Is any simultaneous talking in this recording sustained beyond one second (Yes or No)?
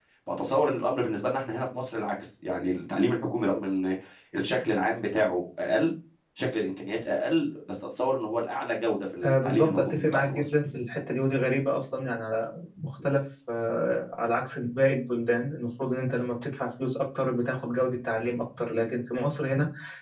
Yes